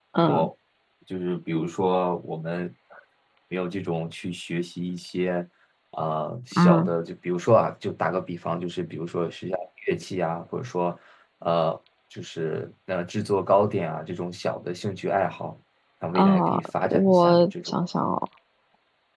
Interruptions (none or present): present